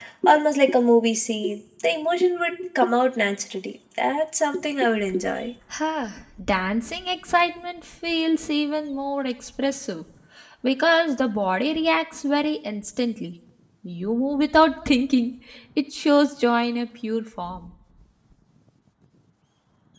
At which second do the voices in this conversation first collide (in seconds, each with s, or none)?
none